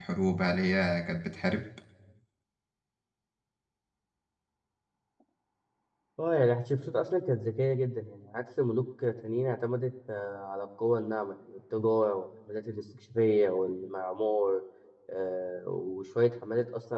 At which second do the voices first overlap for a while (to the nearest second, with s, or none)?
none